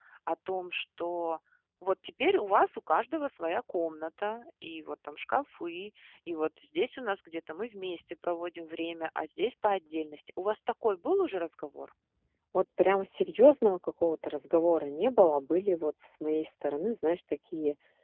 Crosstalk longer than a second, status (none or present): none